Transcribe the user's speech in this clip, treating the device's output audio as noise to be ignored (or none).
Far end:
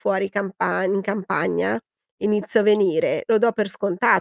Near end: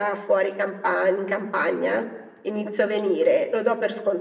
none